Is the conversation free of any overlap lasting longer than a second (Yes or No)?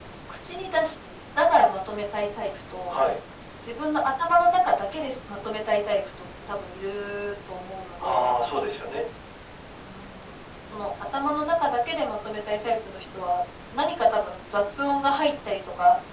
Yes